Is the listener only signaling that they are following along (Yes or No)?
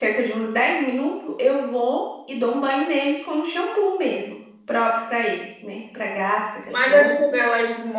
No